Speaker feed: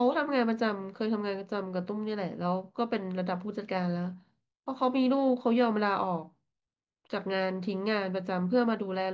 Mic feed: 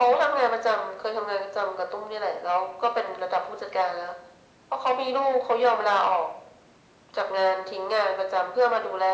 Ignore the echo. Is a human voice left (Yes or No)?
No